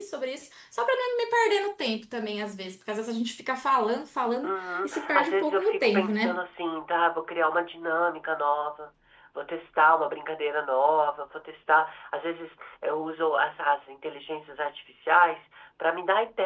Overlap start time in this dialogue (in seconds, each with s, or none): 4.4 s